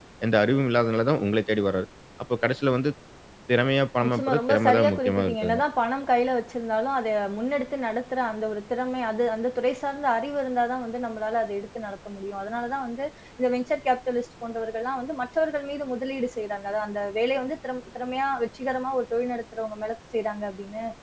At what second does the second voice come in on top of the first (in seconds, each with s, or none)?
4.0 s